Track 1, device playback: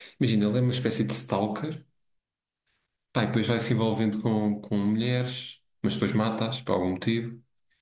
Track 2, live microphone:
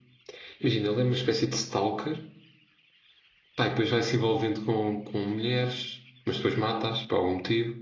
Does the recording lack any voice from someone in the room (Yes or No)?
Yes